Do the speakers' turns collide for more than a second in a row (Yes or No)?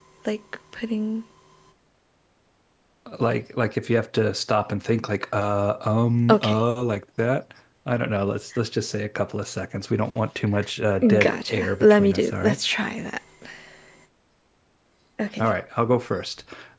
Yes